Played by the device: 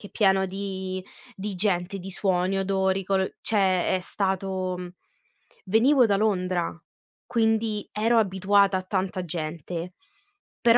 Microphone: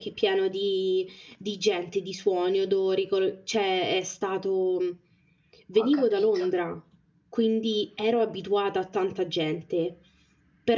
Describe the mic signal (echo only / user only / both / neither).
both